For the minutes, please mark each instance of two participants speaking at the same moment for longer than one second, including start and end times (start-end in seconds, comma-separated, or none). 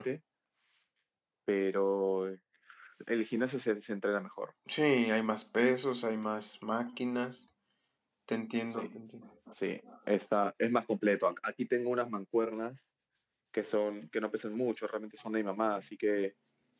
none